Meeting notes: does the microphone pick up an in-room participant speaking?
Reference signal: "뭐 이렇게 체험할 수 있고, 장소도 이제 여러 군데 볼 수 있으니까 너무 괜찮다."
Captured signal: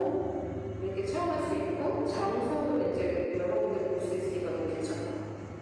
No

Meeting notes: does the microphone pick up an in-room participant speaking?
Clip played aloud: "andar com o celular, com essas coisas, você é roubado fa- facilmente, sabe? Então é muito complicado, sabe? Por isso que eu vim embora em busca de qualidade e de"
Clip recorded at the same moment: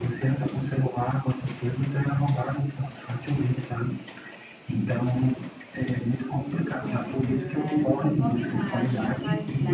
Yes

